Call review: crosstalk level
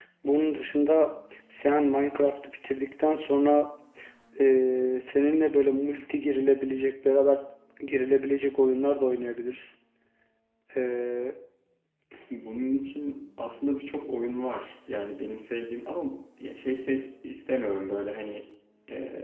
none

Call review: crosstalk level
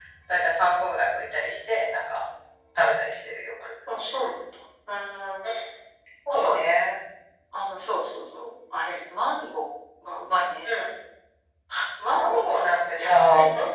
present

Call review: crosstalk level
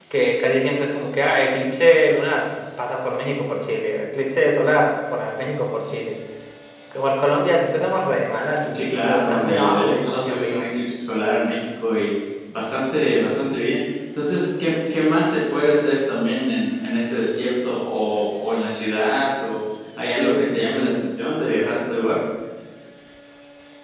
present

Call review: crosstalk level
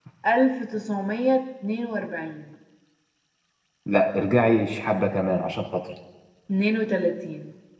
none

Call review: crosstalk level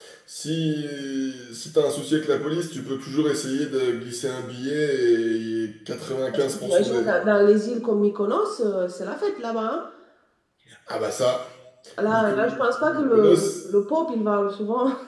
present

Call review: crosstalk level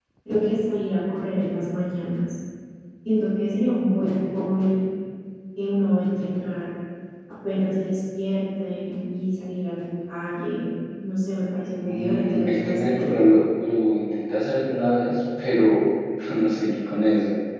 present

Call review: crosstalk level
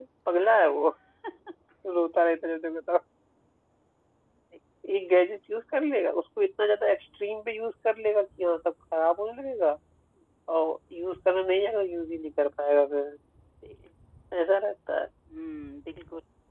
none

